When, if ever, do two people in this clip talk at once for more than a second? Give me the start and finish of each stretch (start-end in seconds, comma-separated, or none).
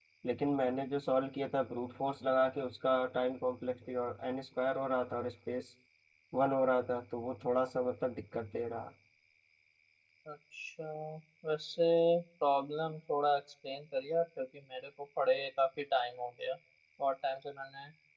none